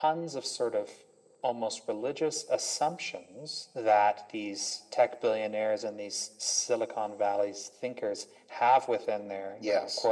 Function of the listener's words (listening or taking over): listening